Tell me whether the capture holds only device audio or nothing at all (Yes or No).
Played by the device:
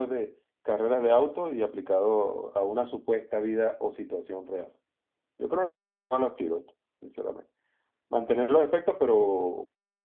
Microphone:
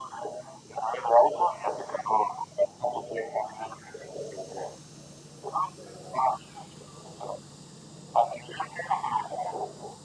Yes